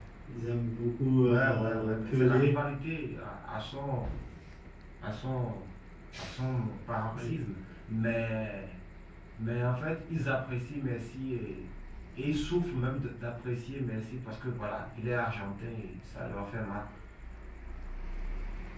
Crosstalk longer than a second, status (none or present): present